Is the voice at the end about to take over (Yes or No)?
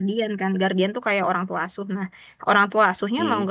No